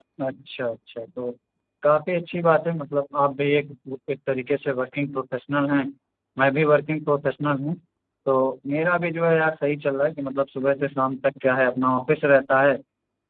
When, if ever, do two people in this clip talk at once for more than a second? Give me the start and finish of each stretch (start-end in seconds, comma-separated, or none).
none